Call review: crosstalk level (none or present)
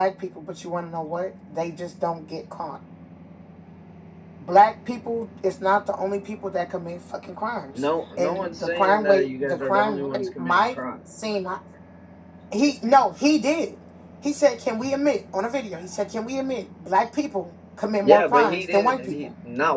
present